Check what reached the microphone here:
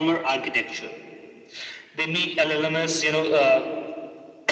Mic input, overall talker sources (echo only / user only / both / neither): echo only